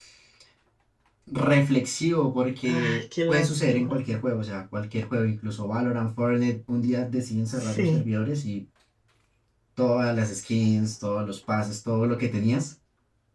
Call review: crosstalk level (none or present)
present